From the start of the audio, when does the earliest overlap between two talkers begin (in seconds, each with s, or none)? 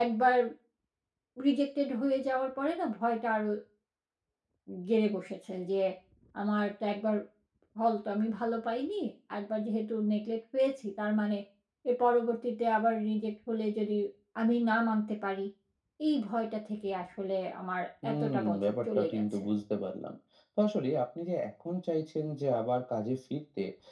18.0 s